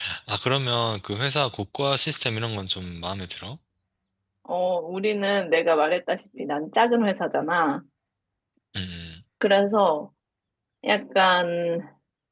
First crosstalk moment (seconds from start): none

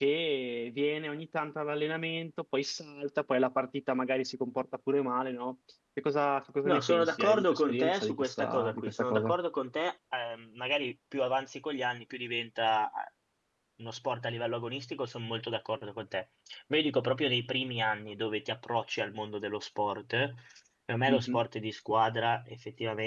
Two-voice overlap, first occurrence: 6.7 s

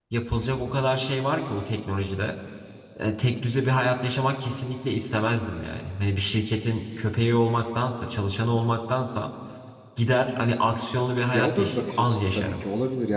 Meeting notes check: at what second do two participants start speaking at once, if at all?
11.3 s

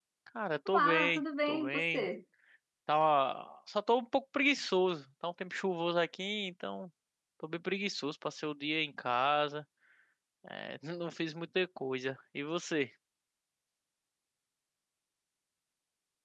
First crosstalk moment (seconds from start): 0.7 s

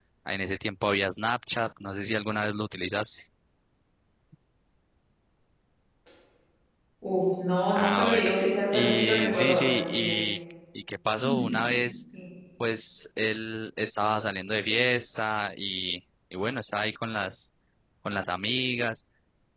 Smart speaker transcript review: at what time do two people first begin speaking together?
7.8 s

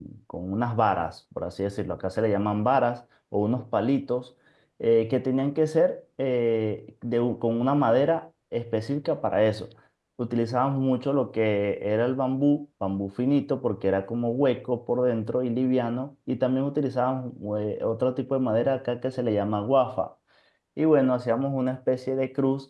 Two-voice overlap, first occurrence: none

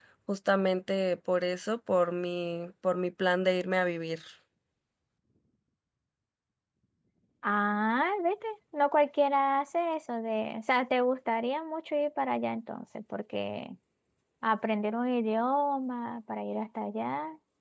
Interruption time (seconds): none

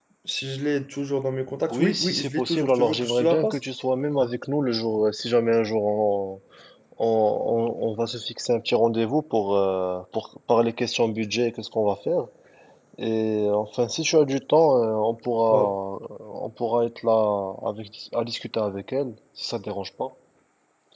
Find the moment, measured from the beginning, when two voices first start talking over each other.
1.7 s

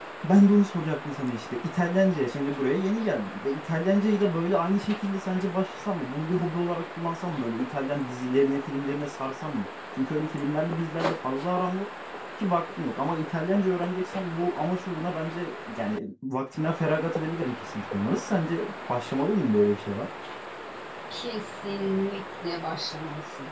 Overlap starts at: none

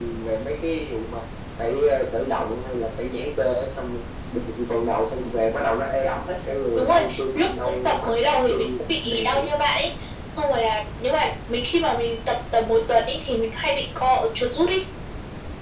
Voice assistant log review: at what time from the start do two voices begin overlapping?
6.8 s

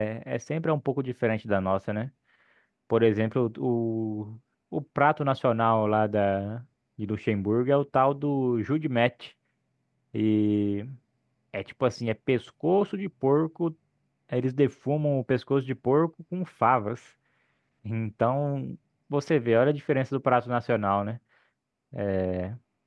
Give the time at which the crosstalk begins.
none

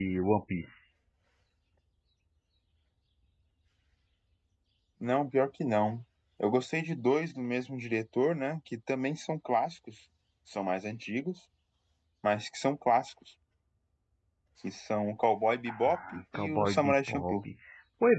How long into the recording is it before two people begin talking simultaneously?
15.7 s

